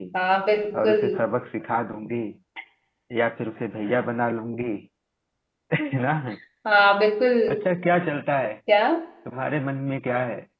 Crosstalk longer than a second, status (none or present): none